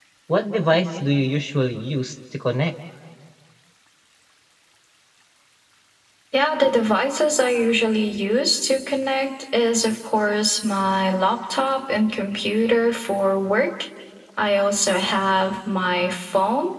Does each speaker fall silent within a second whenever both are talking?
Yes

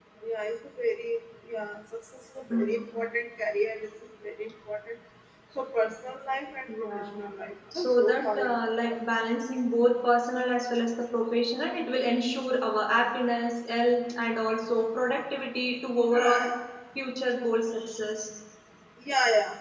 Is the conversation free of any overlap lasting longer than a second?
No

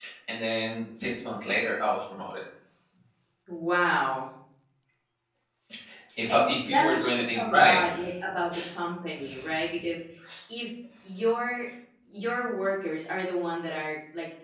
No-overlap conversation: No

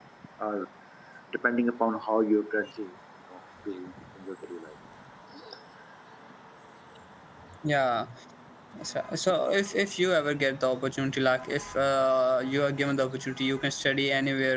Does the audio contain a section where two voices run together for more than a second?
No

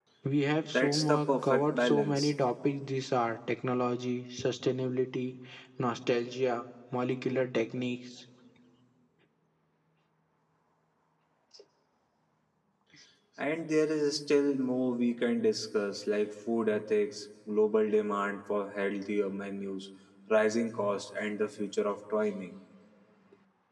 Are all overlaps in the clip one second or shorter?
No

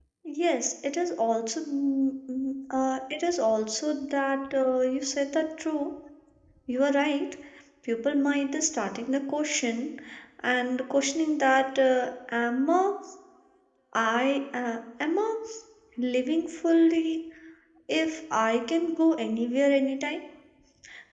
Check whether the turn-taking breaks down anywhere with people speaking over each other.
No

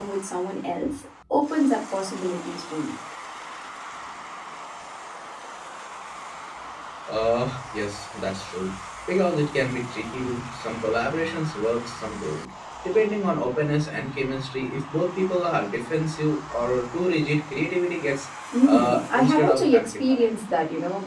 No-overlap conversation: No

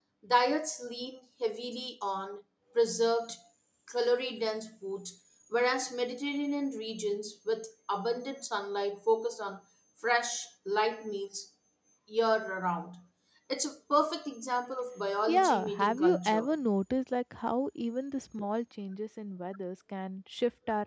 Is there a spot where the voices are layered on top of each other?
Yes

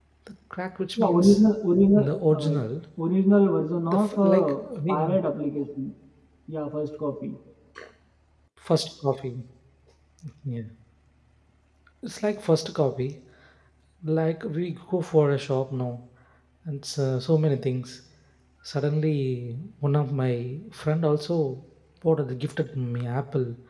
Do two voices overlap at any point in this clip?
Yes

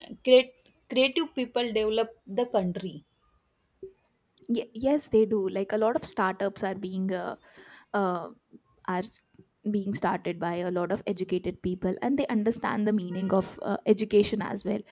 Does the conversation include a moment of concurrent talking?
No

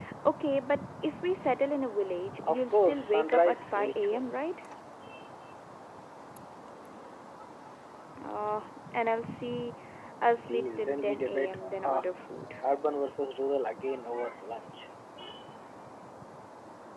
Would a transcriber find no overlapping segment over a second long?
No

